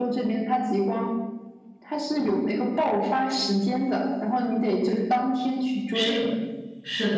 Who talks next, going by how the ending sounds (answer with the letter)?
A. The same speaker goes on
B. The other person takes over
B